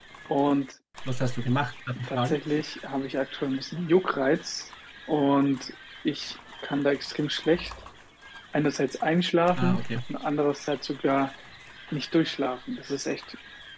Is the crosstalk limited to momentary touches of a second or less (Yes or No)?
Yes